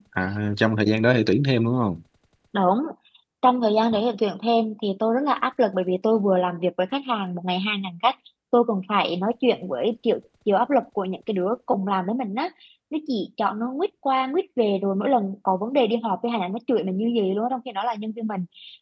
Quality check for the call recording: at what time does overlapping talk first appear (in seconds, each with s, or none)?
none